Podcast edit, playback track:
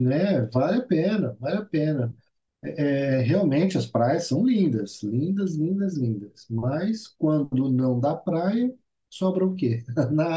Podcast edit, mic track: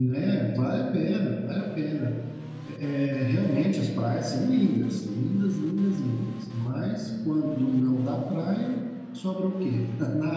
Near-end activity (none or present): none